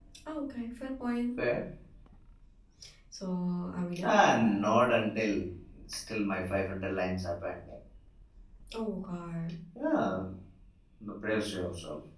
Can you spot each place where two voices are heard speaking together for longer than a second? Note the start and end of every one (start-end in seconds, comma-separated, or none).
none